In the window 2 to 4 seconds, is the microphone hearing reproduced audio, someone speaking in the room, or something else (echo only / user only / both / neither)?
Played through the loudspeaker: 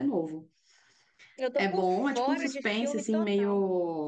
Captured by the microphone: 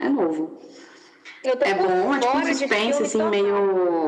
echo only